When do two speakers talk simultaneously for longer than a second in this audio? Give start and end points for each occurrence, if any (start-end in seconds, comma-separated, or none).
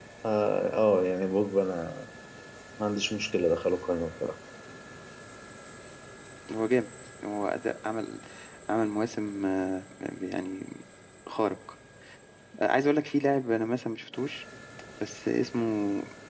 none